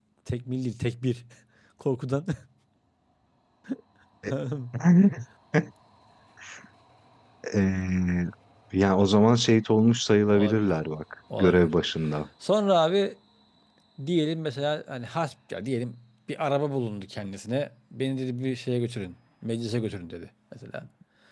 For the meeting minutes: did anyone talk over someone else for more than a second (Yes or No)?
No